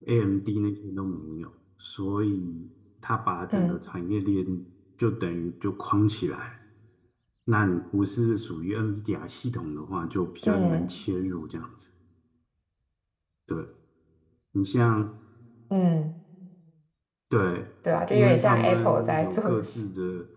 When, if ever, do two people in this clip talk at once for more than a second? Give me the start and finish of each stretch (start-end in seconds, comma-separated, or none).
18.1-19.7